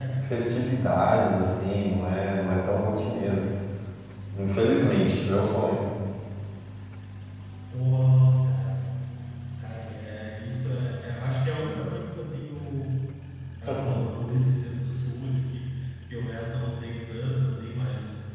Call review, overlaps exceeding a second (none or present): none